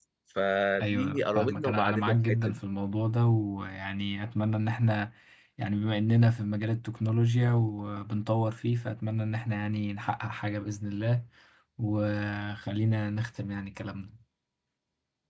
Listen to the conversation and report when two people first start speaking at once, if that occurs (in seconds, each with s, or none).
0.8 s